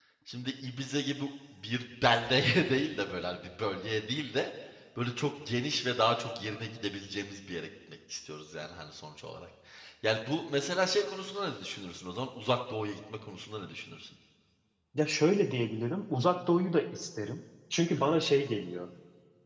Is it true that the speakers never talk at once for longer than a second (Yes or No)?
Yes